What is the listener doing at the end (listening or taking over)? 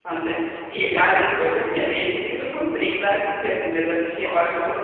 listening